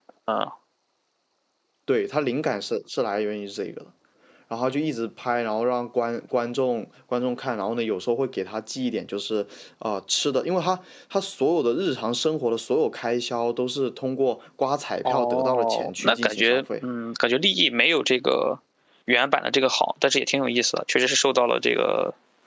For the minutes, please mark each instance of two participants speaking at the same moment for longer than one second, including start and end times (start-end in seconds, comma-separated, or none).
15.1-16.9